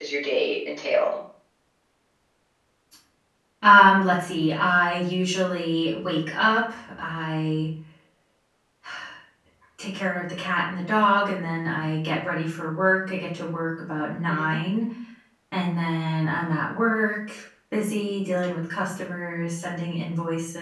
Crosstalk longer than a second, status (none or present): none